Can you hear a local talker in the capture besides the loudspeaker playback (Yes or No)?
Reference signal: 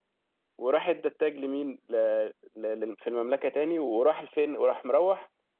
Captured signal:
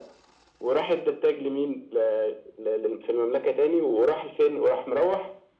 No